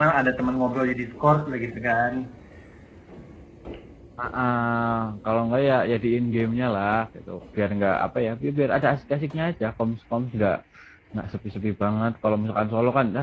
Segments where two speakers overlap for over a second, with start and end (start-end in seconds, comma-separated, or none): none